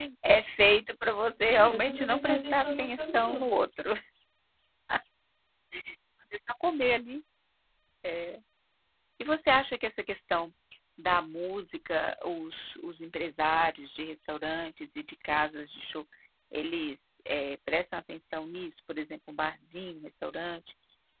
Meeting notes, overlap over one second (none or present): present